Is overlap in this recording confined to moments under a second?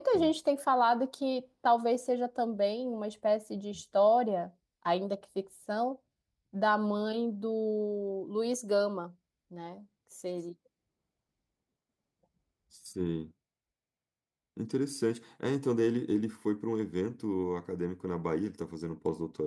Yes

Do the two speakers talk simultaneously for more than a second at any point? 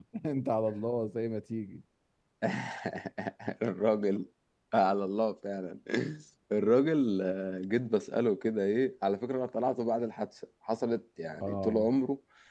No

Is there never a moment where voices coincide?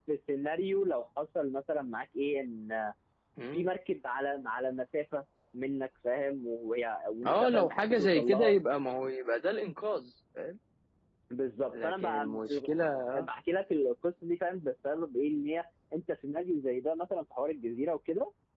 No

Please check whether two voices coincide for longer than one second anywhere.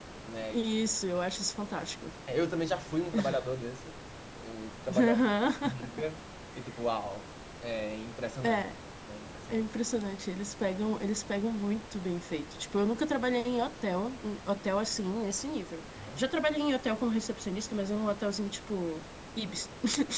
No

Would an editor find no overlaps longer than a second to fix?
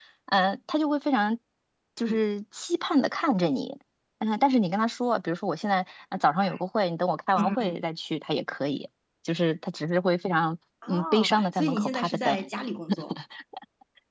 No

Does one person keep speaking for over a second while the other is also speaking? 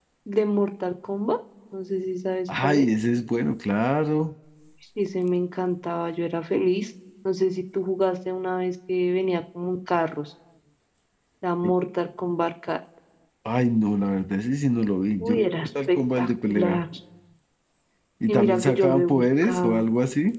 Yes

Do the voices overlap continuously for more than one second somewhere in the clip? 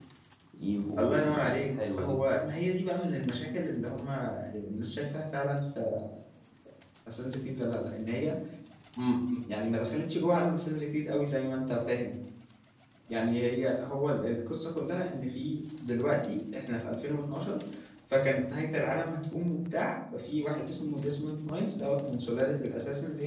Yes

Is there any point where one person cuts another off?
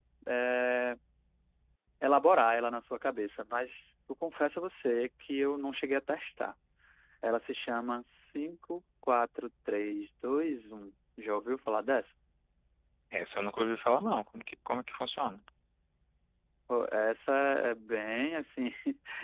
No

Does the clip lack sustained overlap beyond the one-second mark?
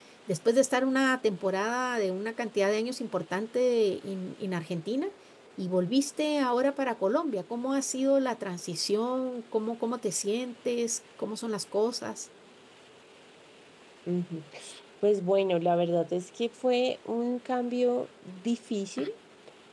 Yes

